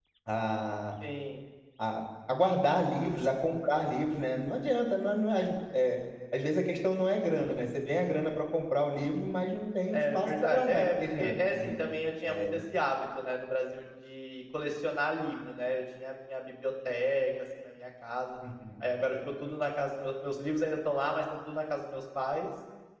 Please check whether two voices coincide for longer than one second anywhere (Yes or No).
Yes